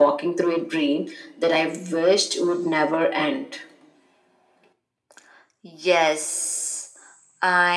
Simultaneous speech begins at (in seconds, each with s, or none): none